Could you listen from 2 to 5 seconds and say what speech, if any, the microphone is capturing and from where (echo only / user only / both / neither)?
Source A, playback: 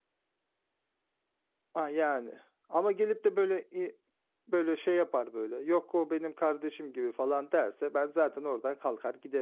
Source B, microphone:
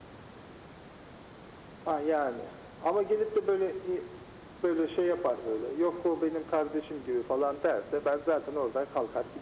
echo only